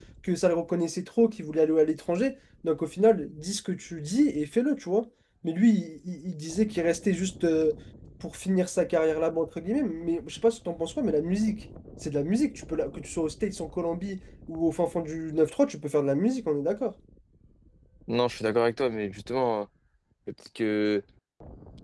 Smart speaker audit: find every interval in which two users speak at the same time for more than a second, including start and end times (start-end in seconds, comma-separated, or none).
none